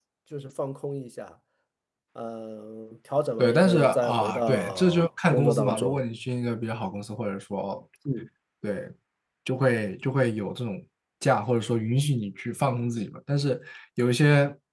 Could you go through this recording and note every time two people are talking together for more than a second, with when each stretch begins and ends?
3.4-6.0

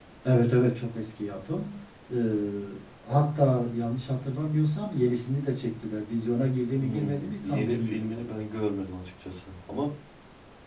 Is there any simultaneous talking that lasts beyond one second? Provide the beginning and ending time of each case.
6.8-8.2

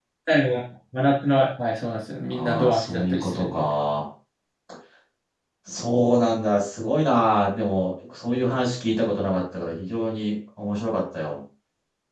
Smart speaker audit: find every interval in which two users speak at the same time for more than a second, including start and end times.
2.3-3.7

